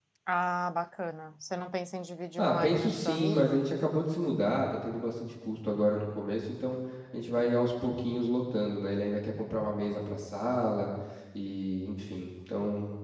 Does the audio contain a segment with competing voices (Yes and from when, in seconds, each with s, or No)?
Yes, from 2.4 s